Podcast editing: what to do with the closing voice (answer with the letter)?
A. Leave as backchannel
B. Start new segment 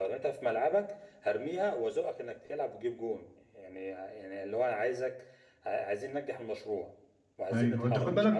B